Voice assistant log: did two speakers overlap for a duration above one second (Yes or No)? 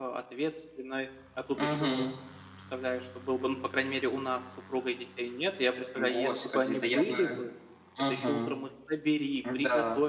Yes